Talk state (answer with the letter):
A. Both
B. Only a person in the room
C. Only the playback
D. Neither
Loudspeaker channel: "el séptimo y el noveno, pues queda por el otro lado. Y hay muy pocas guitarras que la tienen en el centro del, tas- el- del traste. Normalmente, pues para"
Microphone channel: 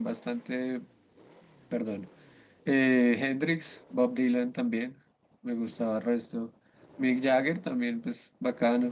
B